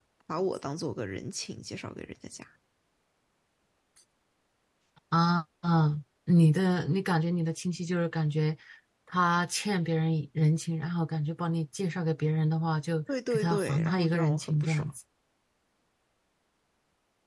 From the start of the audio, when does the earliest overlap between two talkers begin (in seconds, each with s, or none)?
13.1 s